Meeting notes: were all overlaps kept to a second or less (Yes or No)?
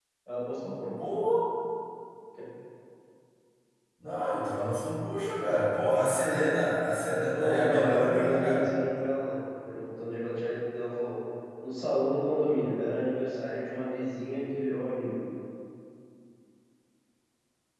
No